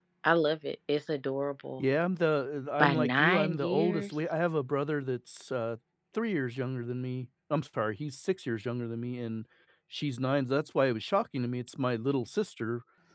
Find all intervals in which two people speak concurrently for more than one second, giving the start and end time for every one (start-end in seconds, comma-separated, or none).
2.8-4.1